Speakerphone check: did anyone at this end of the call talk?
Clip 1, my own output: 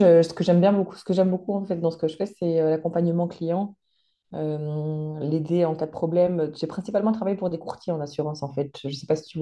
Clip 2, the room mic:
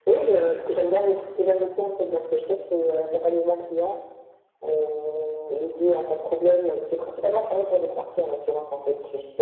No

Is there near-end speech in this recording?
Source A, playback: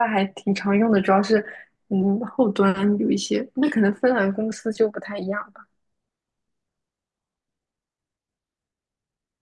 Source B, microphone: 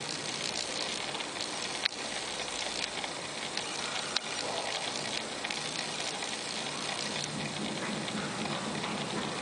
No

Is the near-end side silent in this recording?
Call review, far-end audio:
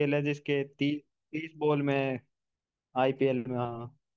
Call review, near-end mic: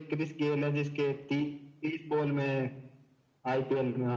Yes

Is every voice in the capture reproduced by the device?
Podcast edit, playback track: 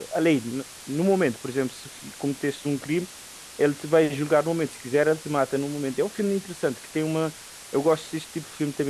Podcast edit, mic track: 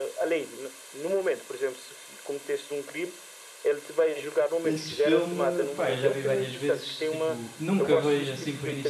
No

